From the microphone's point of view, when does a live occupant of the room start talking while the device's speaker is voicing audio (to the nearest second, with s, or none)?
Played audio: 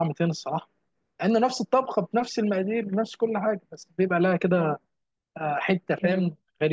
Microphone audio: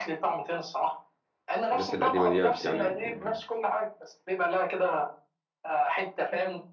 2 s